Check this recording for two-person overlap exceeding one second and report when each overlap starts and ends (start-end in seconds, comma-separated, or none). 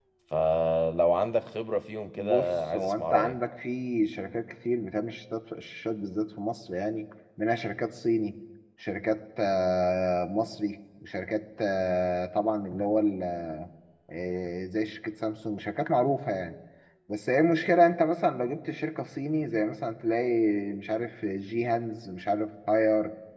2.1-3.4